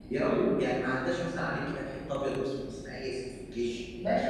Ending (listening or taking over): taking over